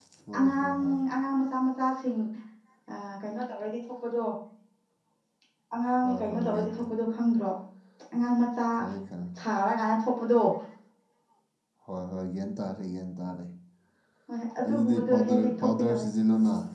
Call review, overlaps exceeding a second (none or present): present